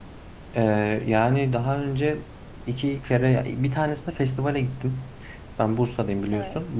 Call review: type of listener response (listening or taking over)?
listening